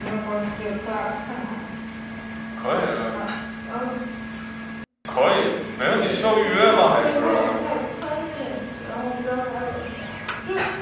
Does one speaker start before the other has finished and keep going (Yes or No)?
Yes